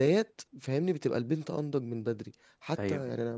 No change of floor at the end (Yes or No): Yes